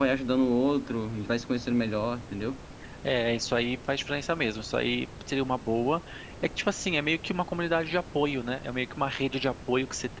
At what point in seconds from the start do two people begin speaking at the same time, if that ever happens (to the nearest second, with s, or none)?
none